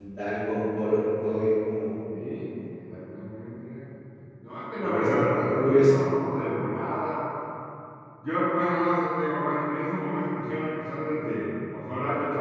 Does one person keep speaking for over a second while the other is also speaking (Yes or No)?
Yes